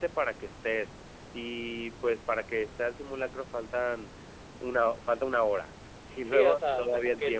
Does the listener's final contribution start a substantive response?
Yes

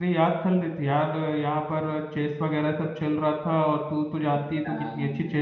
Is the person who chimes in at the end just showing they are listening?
No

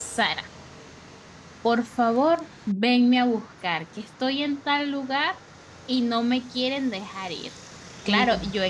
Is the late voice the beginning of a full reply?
No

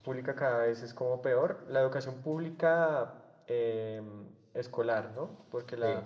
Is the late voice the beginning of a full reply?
No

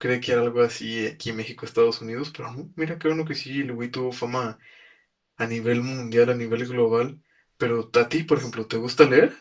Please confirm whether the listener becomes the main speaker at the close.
No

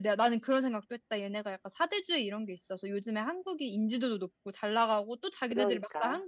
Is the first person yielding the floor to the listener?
No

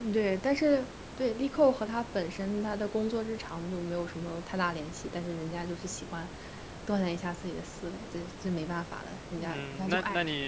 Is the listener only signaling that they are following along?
No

